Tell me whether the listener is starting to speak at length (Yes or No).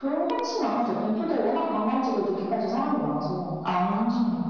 Yes